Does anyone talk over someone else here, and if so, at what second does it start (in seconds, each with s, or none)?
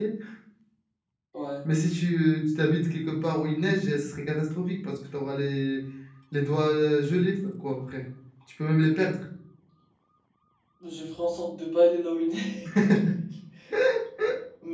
none